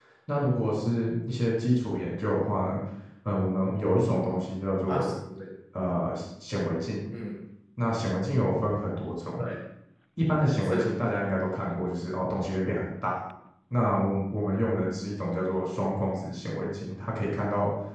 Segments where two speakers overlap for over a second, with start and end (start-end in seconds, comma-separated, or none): none